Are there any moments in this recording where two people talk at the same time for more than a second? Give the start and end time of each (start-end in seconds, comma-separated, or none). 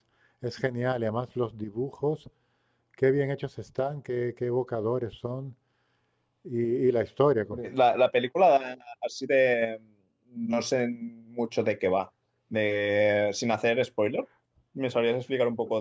none